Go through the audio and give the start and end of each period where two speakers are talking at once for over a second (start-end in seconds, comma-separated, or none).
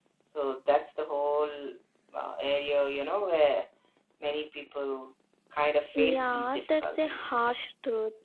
6.0-7.5